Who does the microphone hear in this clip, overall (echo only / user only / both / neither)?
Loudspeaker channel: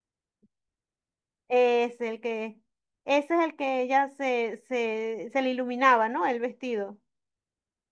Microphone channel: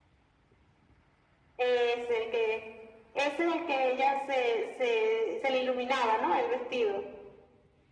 echo only